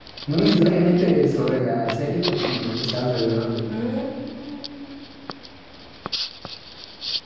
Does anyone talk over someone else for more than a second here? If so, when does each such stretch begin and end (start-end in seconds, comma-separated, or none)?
none